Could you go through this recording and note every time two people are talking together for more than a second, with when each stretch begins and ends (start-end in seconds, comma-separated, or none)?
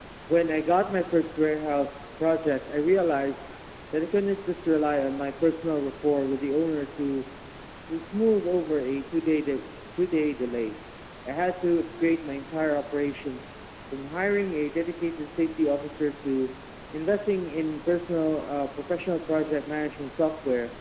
none